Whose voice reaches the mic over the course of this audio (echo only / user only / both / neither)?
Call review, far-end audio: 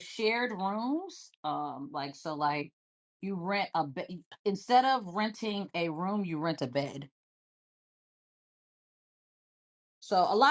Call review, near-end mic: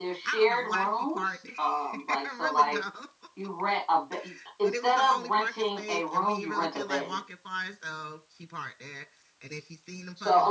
both